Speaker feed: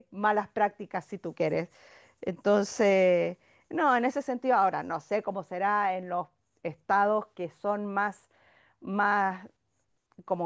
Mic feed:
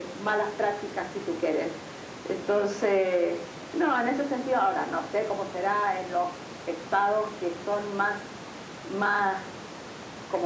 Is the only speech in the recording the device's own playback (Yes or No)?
Yes